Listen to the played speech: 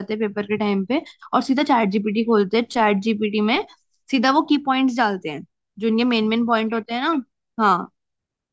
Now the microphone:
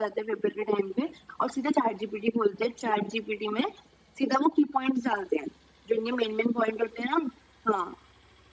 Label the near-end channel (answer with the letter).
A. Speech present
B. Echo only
B